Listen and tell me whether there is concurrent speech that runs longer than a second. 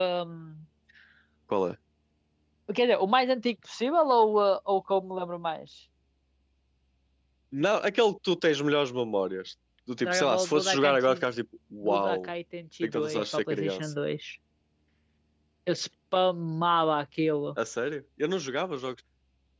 Yes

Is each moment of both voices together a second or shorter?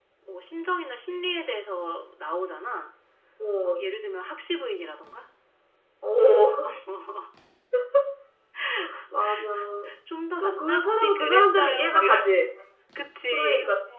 No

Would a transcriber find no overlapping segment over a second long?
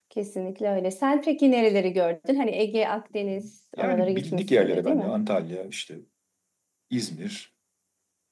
No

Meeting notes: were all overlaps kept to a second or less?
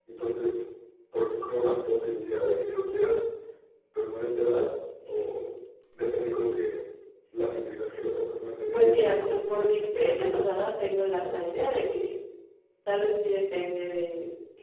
No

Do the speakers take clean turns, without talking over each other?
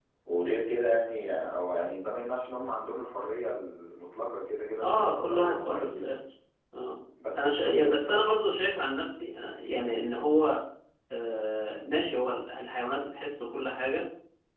No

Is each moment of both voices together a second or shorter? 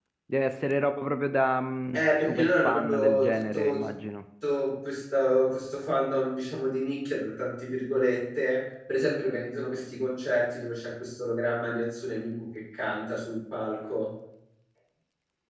No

